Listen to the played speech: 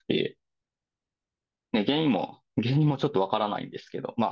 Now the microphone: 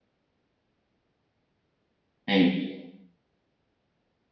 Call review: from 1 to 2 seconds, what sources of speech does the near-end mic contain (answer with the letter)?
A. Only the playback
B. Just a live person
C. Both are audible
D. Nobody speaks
D